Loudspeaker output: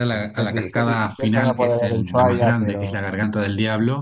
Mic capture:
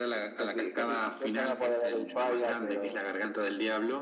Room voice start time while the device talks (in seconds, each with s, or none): none